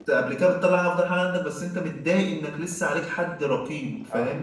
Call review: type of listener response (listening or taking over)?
taking over